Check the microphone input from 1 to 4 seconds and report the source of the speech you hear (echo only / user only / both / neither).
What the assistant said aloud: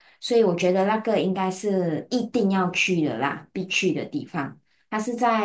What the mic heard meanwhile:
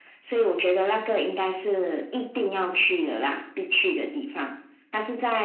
echo only